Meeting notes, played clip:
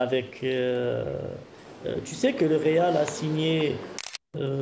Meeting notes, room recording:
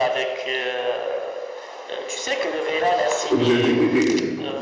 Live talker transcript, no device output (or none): Vous êtes, et- et-